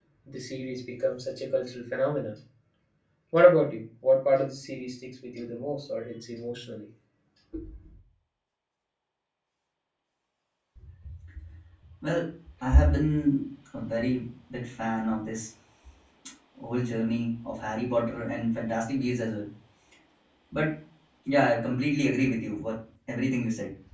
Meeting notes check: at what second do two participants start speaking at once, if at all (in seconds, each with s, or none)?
none